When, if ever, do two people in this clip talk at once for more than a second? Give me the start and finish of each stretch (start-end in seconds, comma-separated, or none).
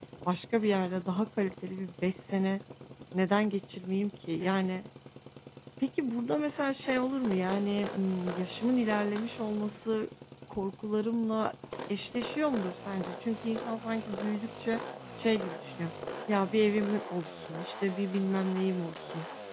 none